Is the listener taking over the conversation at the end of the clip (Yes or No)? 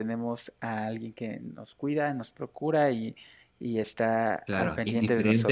Yes